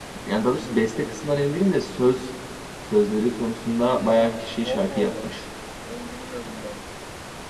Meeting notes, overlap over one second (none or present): present